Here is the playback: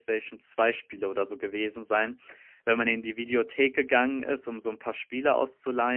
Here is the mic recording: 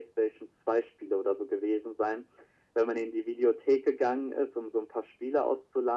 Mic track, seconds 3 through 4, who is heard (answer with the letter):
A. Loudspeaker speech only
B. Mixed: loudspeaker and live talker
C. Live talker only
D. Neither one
A